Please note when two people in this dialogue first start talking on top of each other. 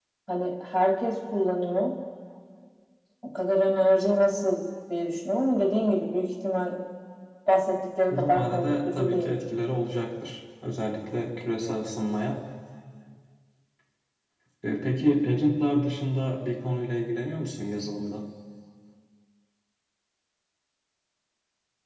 8 s

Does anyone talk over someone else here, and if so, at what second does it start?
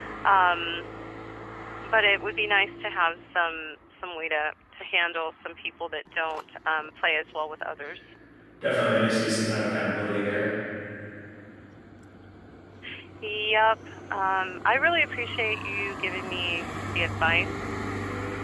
none

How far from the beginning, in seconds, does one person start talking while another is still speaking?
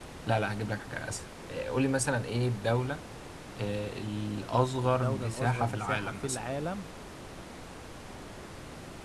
5 s

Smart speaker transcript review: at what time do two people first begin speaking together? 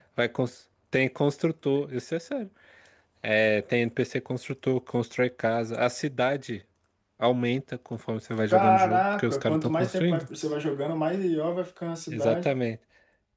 9 s

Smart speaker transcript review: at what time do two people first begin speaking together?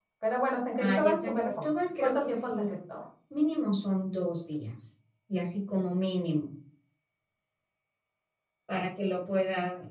1 s

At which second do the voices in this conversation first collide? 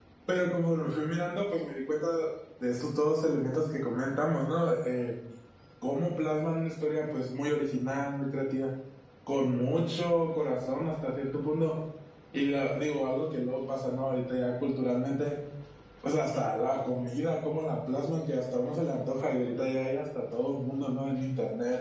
none

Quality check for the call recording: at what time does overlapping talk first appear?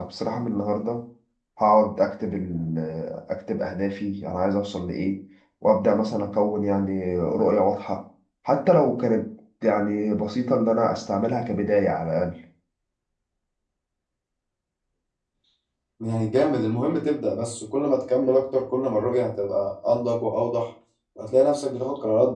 none

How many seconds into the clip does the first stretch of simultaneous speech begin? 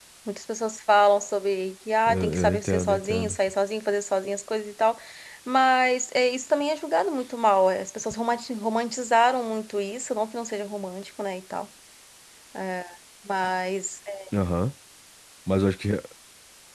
2 s

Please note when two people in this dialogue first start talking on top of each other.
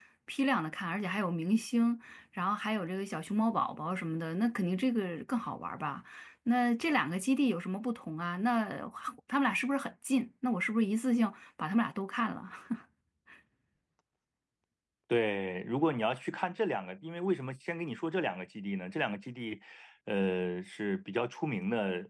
none

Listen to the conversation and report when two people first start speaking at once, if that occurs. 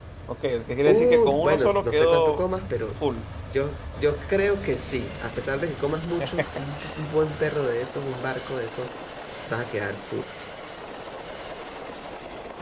1 s

